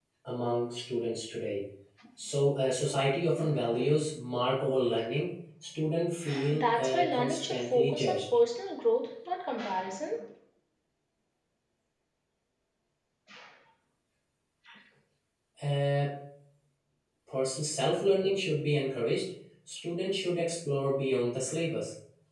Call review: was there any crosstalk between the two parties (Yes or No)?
Yes